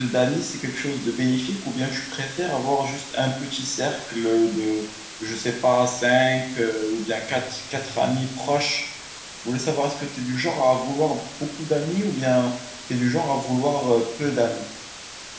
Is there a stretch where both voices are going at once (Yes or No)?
No